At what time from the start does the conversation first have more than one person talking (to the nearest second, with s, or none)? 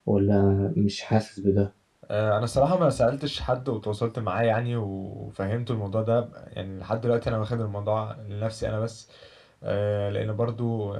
none